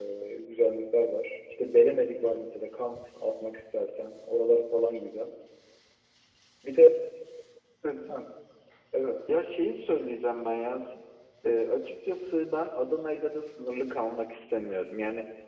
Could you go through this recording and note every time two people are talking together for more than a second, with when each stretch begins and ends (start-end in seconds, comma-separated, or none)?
none